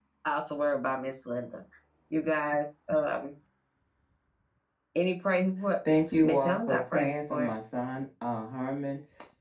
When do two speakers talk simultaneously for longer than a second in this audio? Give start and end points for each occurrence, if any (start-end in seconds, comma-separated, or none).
6.2-7.5